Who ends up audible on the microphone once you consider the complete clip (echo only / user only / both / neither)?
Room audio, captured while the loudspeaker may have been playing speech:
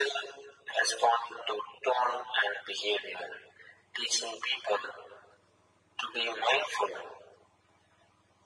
echo only